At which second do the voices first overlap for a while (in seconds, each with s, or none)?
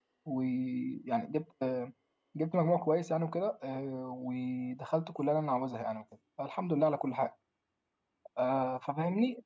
none